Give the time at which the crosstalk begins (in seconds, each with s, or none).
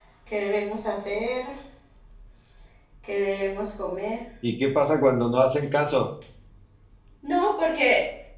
none